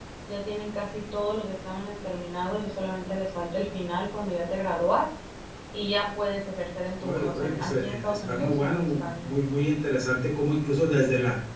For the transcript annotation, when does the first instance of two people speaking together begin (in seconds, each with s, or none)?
7.0 s